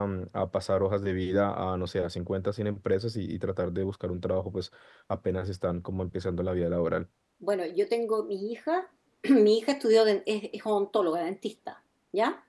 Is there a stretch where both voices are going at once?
No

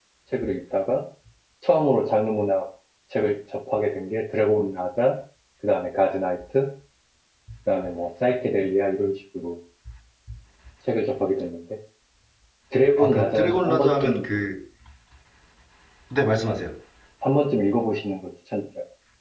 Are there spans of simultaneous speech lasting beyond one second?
Yes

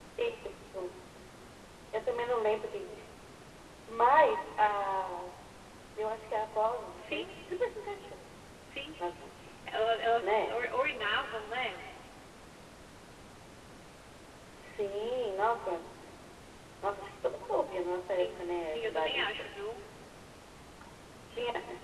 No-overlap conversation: No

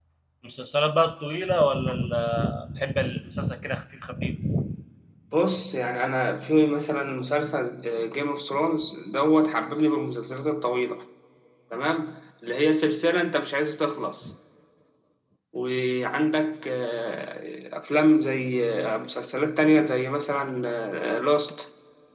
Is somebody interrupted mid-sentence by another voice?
No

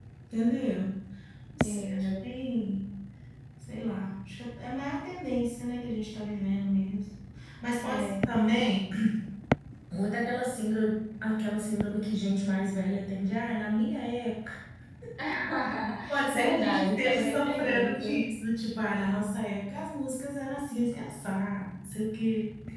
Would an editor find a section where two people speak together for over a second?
Yes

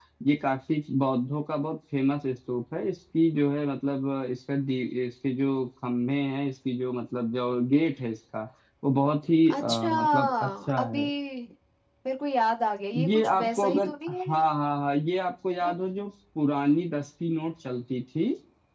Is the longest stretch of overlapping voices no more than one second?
No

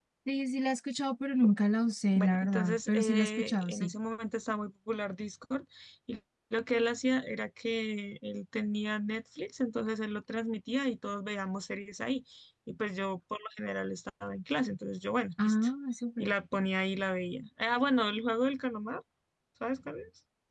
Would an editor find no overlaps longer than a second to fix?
No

